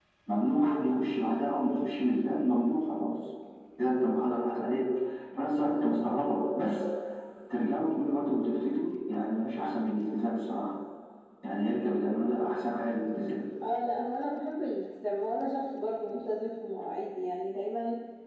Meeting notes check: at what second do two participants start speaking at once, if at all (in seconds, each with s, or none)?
none